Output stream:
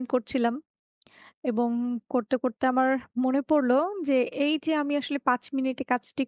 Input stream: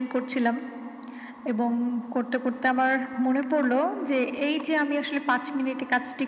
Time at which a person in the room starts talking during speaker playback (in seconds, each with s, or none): none